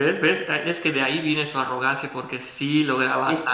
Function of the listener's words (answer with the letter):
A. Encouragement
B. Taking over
B